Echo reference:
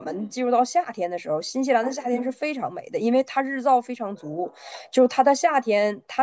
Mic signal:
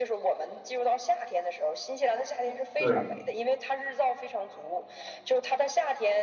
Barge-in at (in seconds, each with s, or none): 2.8 s